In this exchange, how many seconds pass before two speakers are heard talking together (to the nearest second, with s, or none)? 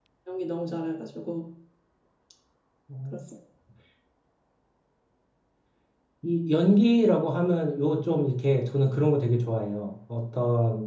none